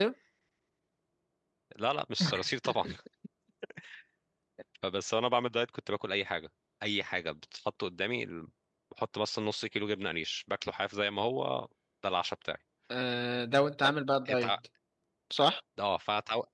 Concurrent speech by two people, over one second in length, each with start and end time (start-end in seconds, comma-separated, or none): none